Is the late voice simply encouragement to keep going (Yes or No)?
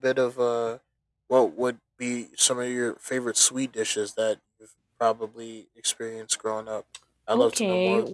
No